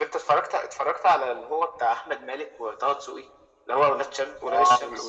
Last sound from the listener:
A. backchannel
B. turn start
B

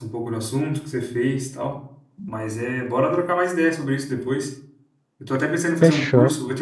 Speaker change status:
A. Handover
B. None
B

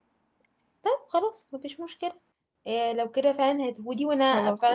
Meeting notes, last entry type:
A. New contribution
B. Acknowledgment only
B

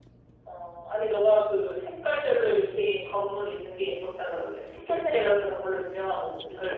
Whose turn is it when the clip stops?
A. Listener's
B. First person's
B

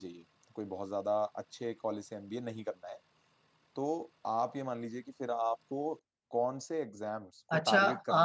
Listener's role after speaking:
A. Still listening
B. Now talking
B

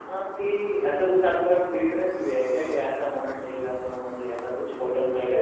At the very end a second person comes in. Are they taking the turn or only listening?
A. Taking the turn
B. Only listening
A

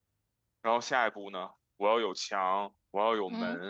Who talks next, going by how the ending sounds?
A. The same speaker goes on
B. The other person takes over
A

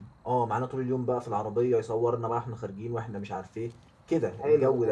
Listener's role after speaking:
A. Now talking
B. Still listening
A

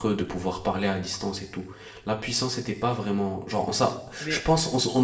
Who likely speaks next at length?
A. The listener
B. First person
B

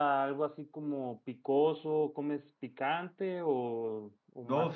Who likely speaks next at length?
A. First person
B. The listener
B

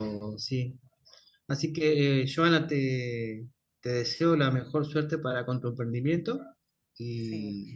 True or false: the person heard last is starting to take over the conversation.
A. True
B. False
A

